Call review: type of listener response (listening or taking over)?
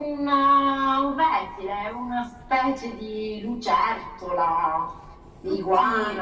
listening